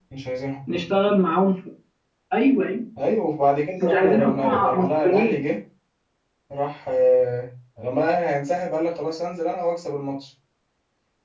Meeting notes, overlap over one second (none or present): present